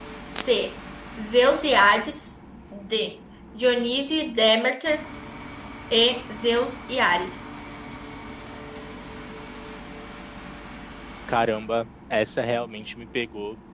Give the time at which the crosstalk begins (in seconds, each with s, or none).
none